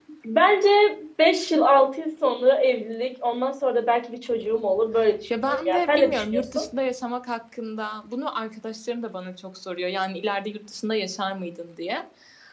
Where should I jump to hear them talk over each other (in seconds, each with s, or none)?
5.3 s